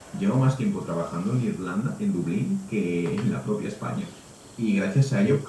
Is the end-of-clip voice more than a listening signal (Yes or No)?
No